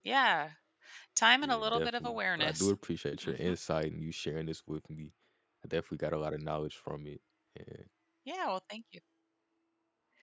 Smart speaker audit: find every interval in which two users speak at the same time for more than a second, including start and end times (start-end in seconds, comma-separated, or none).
1.4-2.7